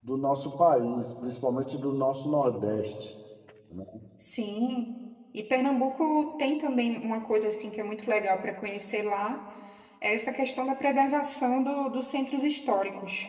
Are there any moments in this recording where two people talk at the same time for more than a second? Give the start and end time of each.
none

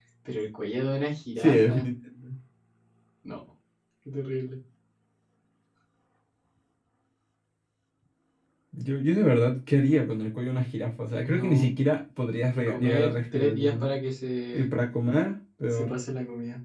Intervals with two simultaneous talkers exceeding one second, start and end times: 12.6-13.9

